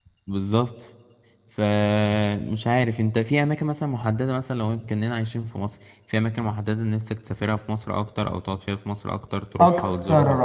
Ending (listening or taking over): taking over